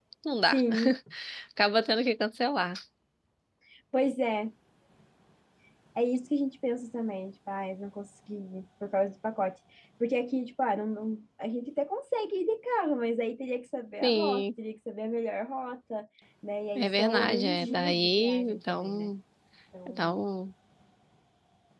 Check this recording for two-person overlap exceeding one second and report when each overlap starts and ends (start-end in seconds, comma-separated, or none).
16.8-19.1